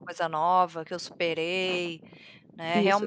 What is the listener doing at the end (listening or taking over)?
taking over